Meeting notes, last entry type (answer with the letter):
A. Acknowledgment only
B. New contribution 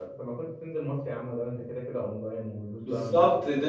B